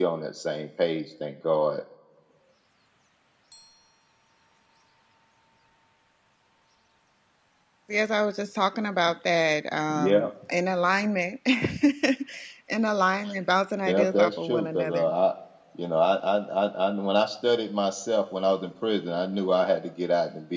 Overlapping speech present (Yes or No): Yes